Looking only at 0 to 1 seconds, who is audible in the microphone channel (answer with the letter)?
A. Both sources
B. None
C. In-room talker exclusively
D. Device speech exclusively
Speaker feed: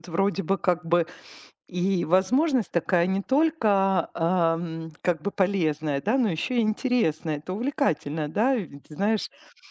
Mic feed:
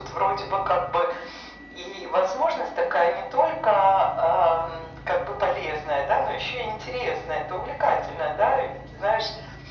D